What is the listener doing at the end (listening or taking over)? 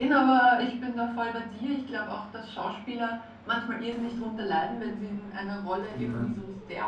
listening